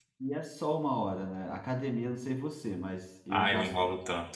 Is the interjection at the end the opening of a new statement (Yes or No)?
Yes